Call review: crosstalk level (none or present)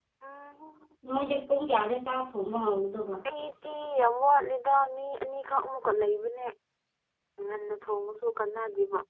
none